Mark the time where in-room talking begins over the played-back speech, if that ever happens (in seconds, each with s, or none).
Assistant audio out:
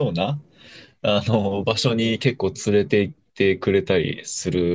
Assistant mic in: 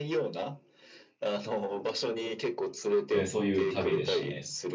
3.1 s